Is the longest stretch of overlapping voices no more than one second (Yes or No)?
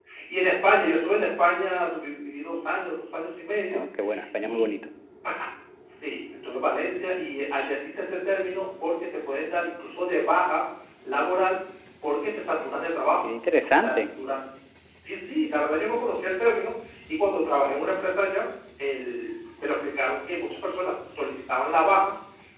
Yes